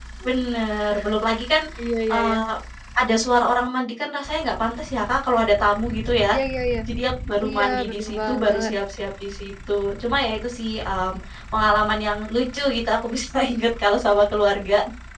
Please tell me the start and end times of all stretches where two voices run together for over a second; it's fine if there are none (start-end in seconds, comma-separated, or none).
7.5-8.7